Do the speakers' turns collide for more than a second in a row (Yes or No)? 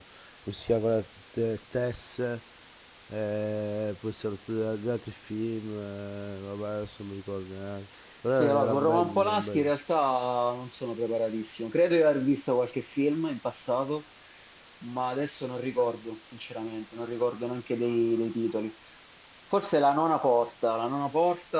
Yes